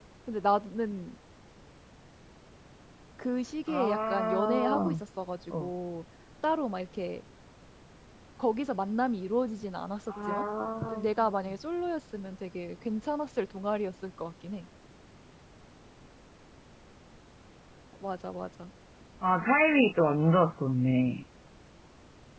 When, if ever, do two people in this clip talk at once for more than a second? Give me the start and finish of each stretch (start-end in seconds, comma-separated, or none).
3.7-5.0